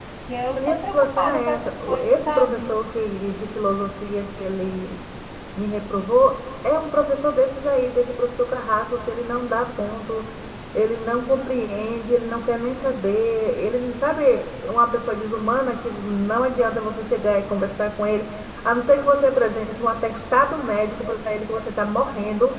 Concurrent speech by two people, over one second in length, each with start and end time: 0.6-2.7

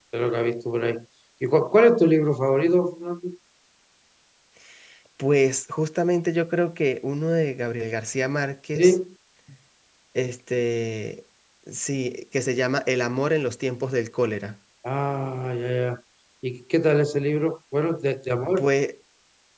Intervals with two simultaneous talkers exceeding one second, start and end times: none

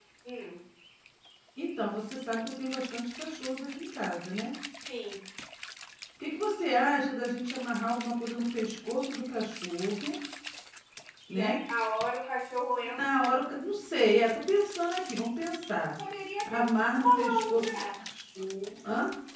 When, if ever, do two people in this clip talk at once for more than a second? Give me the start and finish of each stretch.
16.4-17.8

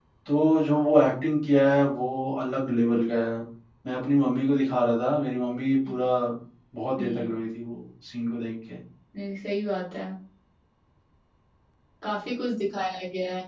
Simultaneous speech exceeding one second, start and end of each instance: none

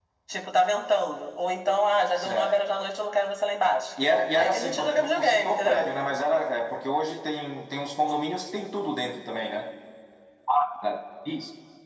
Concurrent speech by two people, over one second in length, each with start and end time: 4.4-5.9

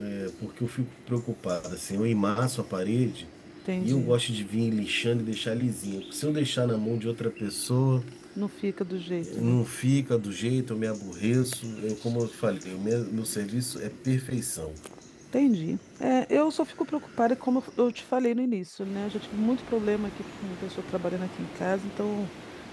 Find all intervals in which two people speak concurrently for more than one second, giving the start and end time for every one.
none

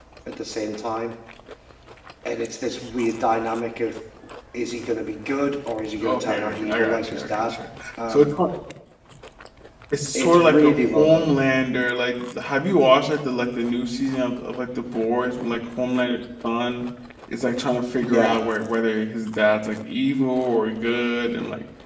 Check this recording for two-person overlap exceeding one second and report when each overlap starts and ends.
6.0-7.6, 10.2-11.3

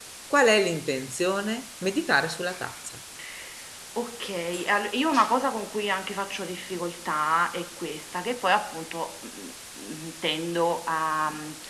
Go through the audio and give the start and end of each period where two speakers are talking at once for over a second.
none

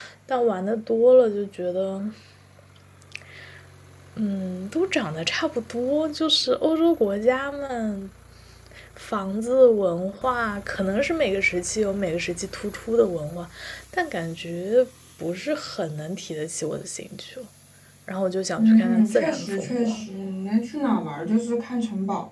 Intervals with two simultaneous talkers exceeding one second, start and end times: 18.6-20.1

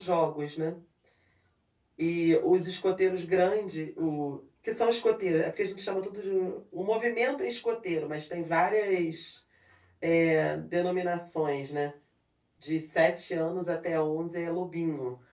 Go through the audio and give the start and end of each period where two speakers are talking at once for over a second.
none

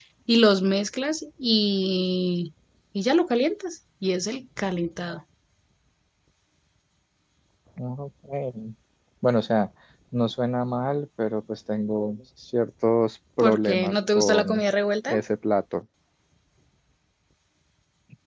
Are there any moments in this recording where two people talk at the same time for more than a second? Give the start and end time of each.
13.4-14.6

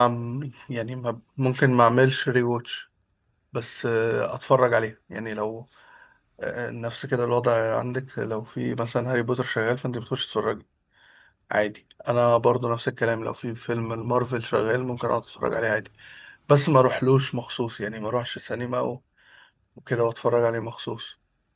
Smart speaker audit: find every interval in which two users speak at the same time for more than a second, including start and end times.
none

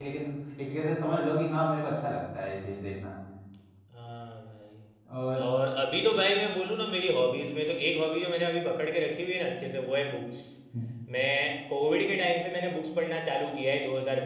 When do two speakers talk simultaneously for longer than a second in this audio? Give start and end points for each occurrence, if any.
none

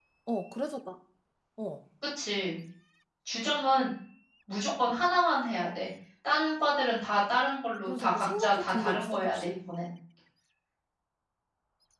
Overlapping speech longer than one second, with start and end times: 7.9-9.5

